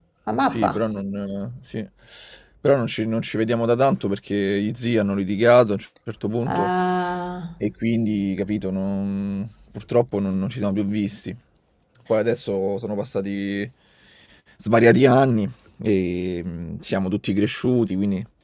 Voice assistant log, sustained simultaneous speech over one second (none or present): none